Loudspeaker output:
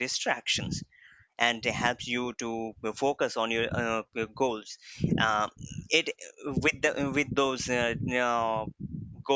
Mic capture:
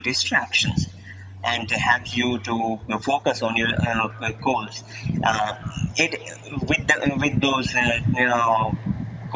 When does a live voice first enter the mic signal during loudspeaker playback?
none

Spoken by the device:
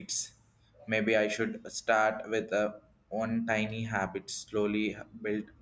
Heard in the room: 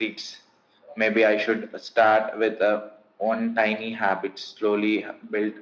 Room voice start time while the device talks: none

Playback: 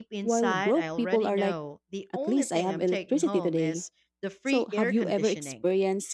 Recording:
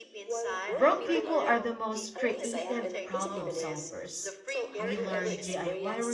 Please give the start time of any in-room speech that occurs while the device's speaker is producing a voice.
0.7 s

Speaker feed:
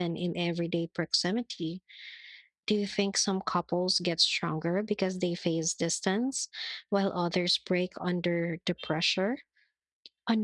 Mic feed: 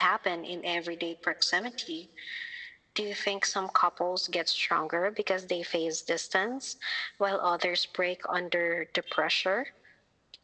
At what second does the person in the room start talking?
none

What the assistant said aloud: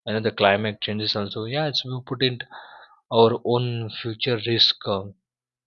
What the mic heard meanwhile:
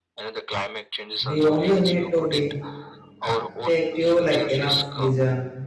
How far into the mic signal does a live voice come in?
1.3 s

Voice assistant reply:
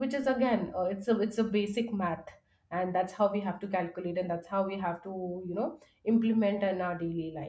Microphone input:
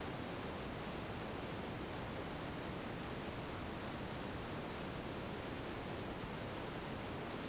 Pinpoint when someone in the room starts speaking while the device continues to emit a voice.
none

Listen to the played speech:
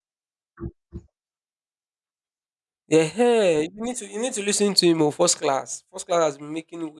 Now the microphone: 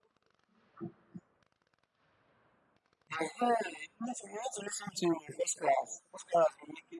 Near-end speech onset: none

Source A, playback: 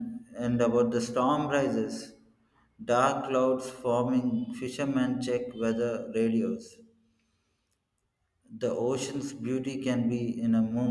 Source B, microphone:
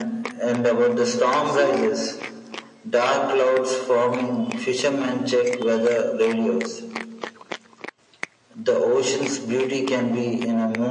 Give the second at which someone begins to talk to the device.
1.4 s

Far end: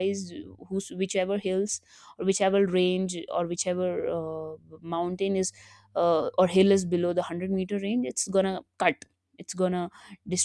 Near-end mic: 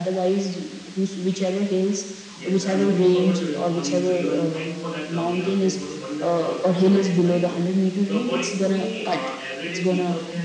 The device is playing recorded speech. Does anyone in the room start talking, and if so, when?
2.3 s

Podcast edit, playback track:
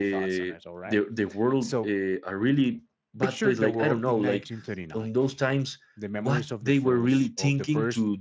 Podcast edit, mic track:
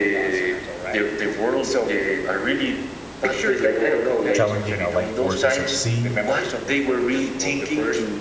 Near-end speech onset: 4.3 s

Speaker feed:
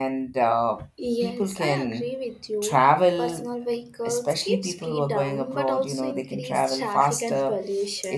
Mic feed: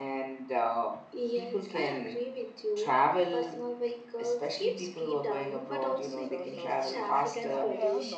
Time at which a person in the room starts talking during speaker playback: 5.6 s

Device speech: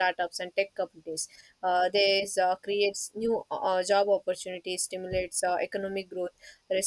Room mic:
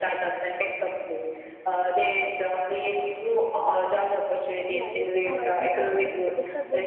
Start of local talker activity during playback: 4.7 s

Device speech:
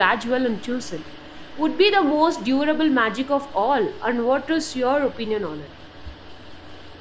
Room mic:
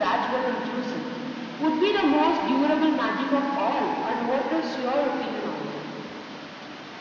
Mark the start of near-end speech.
none

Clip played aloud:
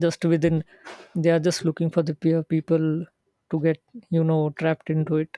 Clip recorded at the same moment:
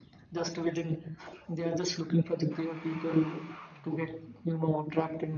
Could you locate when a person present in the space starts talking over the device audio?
none

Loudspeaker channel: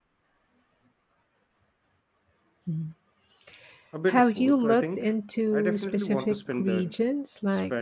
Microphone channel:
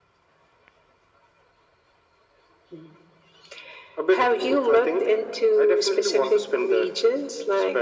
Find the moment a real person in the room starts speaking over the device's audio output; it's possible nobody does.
none

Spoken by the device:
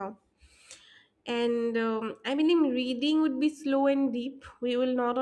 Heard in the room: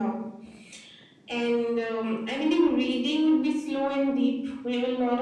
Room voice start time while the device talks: none

